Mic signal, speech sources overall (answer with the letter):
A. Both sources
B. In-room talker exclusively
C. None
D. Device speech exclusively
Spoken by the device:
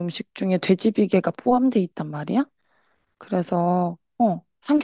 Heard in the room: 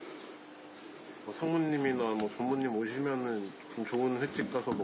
B